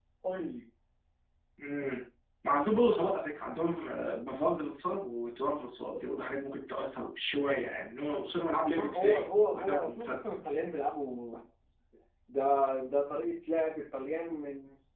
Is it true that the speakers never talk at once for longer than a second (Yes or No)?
No